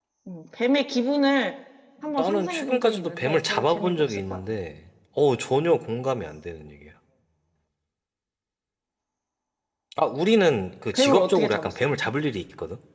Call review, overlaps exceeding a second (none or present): present